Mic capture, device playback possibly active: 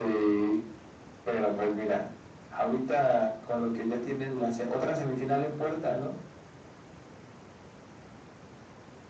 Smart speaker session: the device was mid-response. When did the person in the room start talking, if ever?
none

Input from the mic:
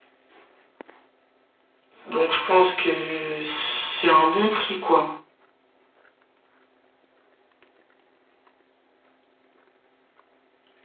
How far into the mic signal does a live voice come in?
2.0 s

